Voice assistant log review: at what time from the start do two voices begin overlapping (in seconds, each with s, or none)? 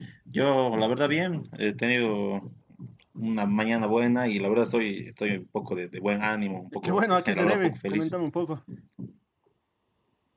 6.8 s